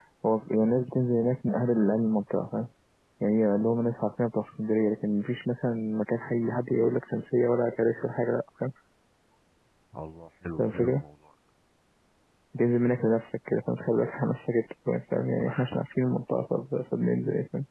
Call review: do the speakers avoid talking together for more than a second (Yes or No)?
Yes